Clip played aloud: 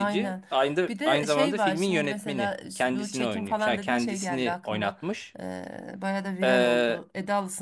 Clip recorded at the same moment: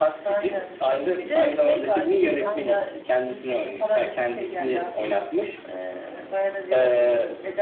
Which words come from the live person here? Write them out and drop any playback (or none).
Allah Allah.